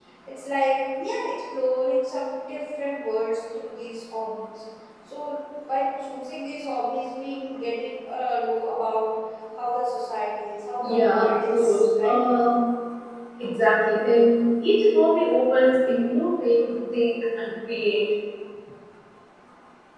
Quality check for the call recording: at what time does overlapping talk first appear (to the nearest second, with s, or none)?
11 s